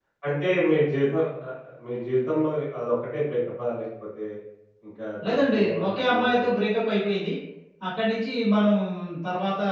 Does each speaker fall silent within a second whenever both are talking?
No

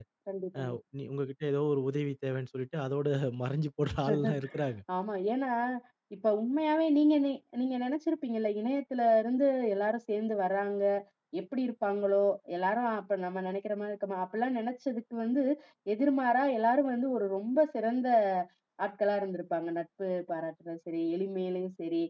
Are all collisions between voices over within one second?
Yes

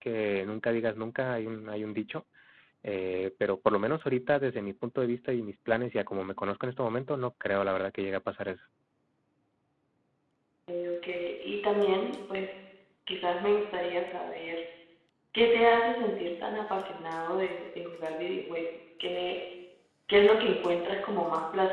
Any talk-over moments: No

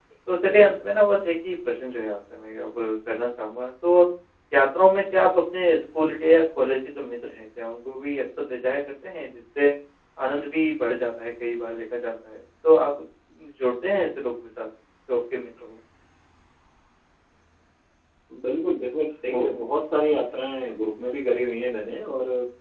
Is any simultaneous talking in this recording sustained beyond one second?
No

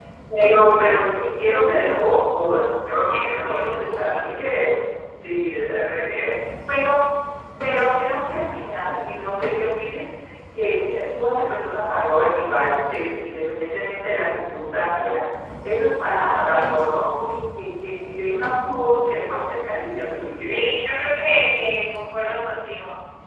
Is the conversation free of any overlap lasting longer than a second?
No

